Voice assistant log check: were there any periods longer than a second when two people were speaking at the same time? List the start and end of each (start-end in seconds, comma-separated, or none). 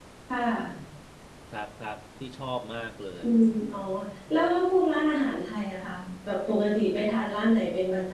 none